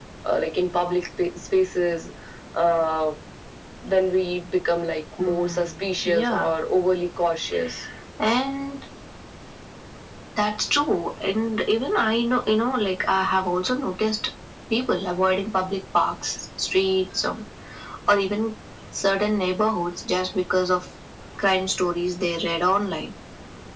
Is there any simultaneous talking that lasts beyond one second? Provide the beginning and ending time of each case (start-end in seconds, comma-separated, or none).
5.2-6.5